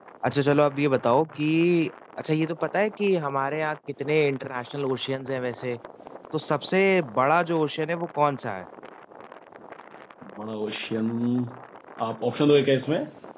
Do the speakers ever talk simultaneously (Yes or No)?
No